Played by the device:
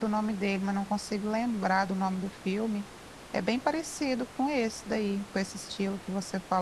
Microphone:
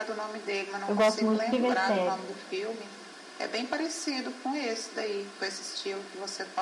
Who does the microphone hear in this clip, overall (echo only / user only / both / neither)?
both